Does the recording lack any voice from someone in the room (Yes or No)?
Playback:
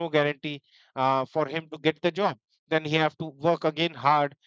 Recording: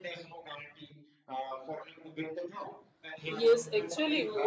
No